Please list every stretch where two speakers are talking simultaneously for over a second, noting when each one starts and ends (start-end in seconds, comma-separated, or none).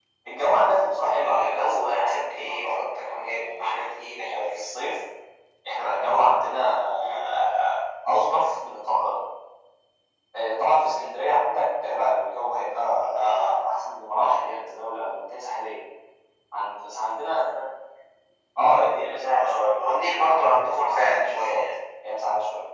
1.0-4.6, 19.4-21.6